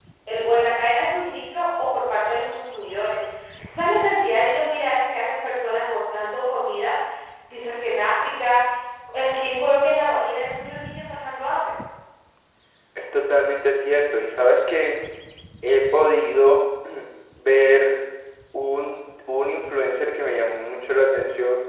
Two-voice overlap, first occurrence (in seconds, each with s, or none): none